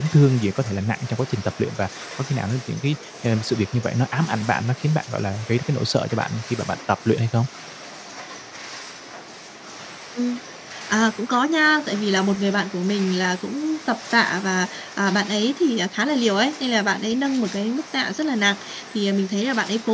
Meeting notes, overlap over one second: none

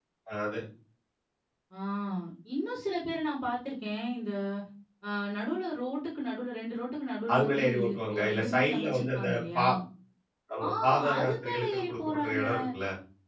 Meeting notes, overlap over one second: present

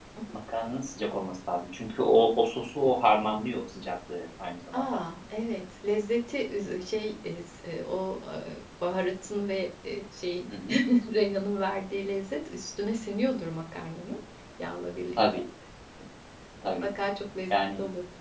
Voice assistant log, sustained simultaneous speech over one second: none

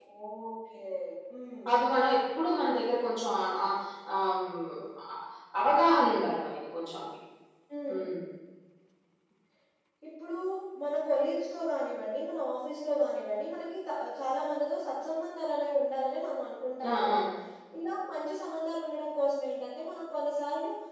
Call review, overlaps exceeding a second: none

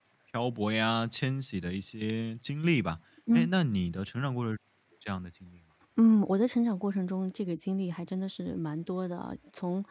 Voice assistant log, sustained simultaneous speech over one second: none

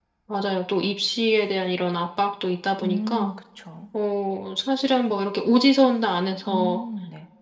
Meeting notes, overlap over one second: none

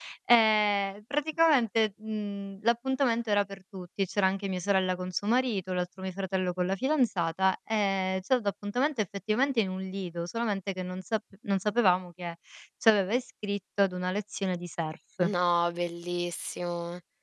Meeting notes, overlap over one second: none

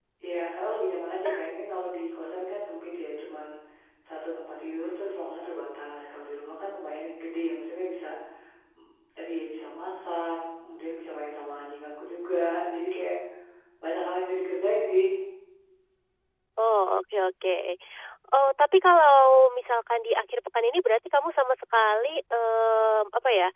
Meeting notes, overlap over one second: none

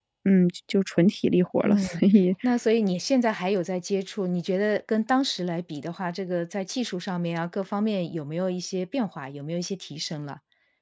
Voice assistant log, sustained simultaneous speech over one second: none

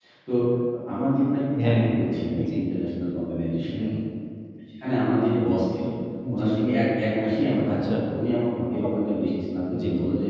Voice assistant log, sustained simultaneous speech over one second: none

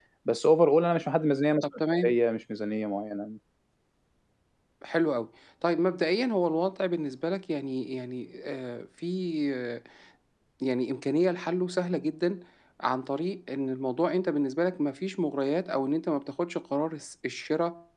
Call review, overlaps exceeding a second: none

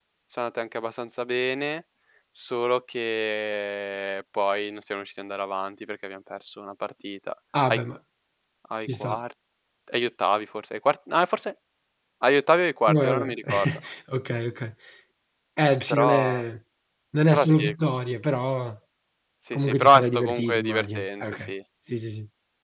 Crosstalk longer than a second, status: present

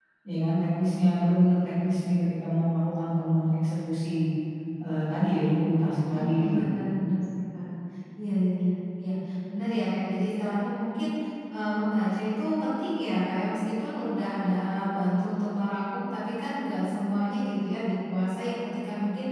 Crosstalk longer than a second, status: none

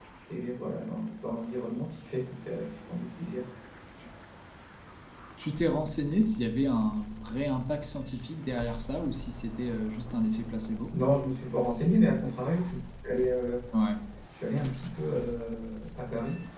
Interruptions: none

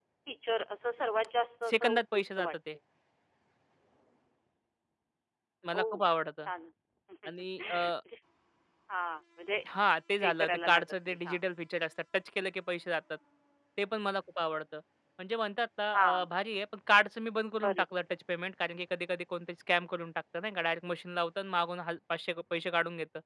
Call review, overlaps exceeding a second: present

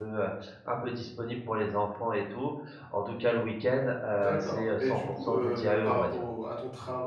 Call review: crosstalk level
present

